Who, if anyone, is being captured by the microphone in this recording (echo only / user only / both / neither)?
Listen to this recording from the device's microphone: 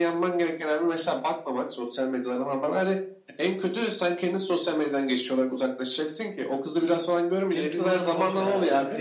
both